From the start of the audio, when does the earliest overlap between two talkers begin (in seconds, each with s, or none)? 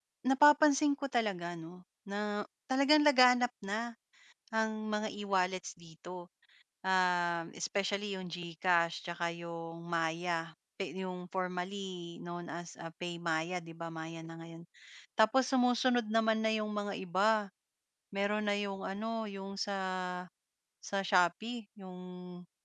none